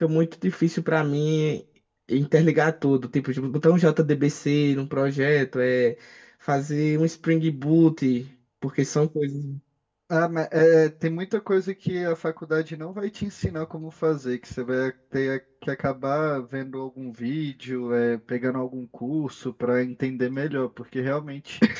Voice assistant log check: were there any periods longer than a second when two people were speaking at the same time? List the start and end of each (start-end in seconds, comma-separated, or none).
none